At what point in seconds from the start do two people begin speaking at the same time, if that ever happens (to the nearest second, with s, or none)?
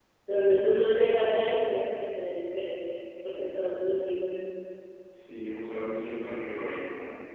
none